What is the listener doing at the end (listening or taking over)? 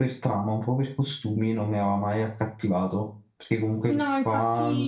taking over